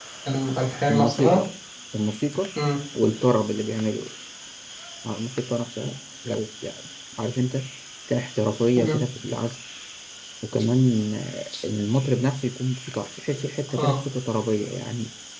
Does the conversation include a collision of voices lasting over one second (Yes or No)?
No